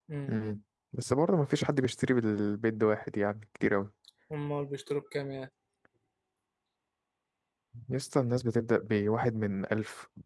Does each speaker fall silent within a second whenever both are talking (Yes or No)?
Yes